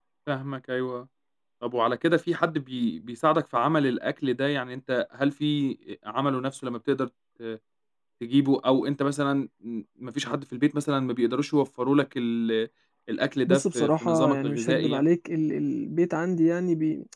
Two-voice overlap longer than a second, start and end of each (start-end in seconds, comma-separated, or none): 13.5-15.1